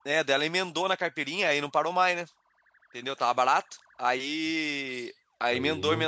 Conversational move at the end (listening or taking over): listening